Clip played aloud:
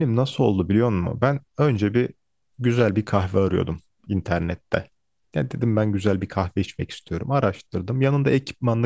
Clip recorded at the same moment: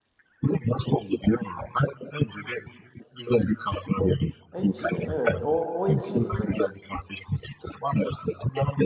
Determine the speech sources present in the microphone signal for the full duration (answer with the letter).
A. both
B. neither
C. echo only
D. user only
A